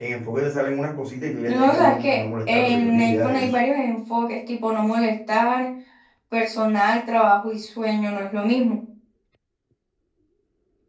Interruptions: present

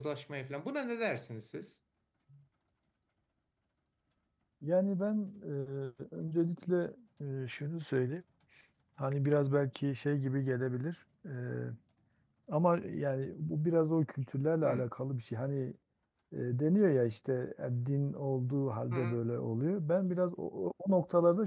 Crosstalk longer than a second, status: none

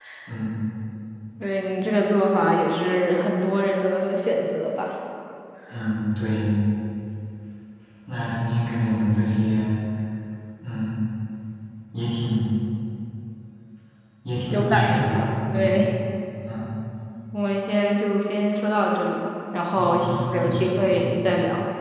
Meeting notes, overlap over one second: present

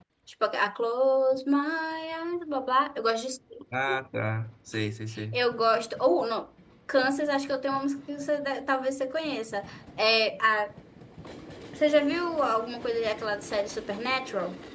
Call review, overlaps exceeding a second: none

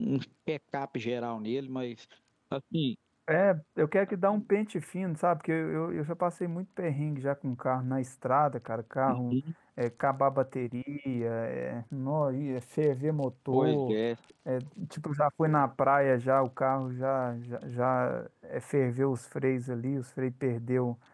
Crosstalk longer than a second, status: none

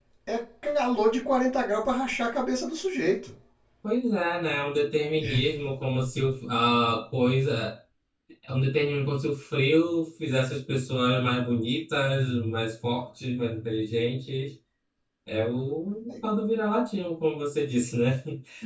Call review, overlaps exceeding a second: none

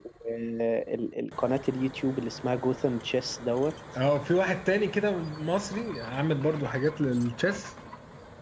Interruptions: none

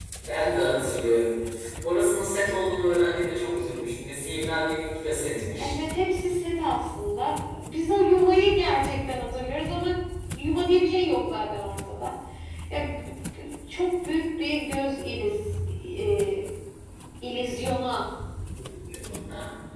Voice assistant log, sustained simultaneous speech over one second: none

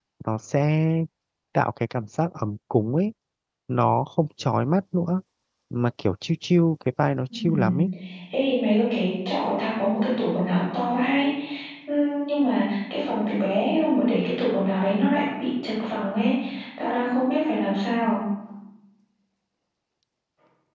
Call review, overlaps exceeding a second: none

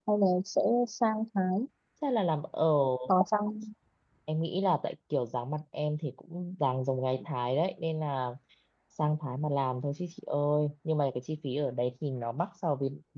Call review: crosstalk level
none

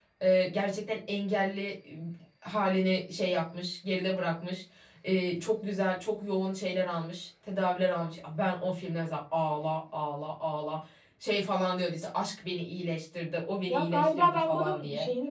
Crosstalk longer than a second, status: present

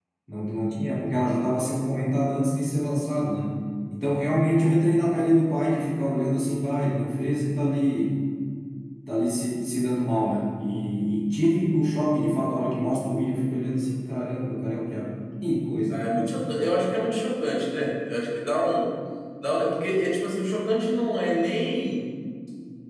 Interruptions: none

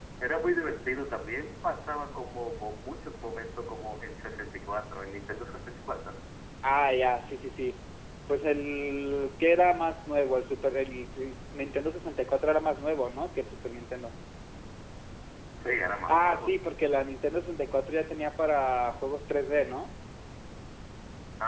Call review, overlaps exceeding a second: none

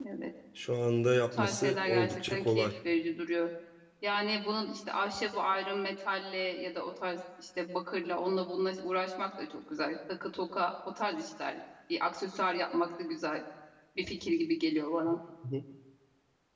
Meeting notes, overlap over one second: present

